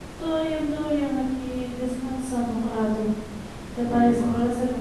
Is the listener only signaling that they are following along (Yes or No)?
Yes